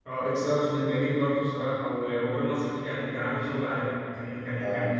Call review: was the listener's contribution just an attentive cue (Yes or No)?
Yes